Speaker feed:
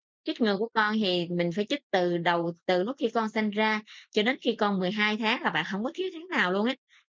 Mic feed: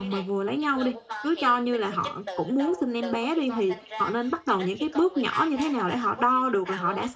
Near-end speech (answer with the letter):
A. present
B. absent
A